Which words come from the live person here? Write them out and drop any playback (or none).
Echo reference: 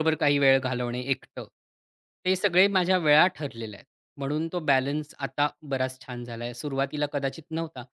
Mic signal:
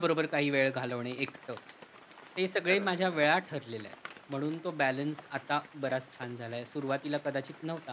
खरंच